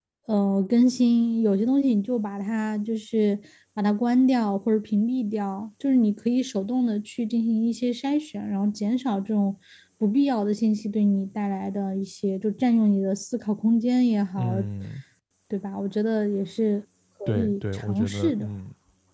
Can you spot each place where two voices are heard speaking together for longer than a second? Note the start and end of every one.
17.3-18.5

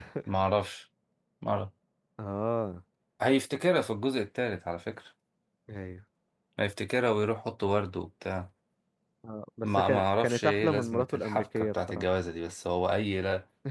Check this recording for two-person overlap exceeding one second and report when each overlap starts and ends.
9.6-12.1

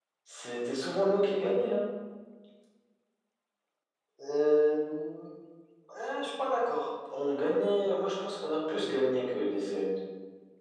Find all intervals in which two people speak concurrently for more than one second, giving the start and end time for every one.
none

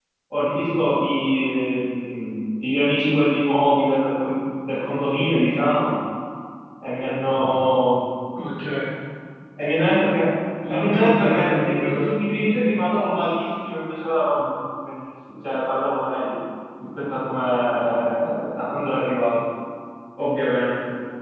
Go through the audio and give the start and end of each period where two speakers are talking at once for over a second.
10.7-12.1

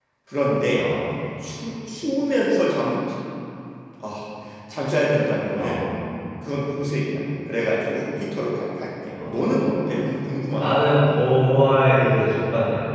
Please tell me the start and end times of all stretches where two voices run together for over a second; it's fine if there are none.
none

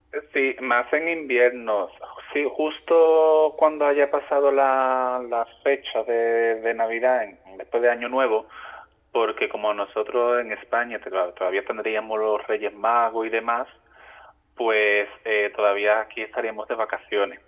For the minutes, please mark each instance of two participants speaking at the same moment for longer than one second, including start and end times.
none

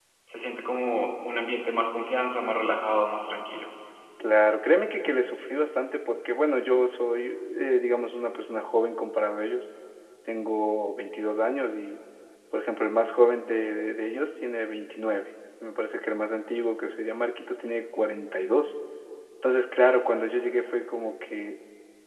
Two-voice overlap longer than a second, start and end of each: none

